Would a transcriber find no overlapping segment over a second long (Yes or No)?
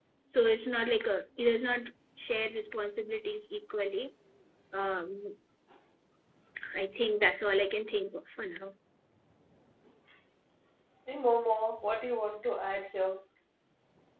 Yes